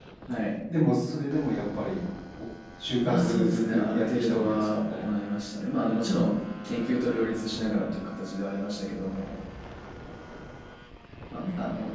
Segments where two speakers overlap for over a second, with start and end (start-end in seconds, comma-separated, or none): 3.0-5.0